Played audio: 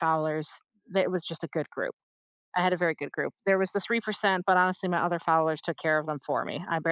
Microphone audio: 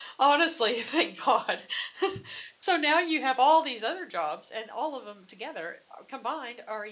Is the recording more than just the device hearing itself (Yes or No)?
Yes